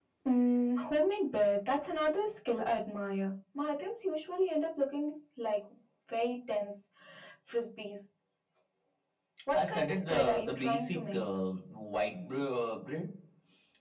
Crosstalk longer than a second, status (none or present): present